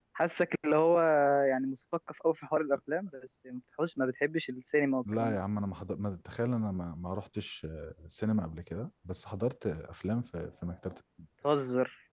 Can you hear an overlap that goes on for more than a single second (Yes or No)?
No